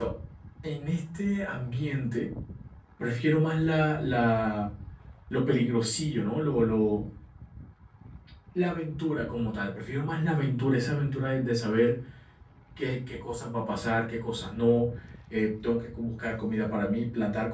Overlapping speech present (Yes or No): No